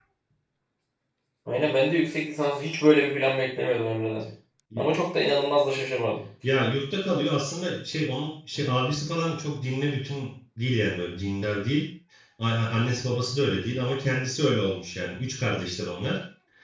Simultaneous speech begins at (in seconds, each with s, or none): none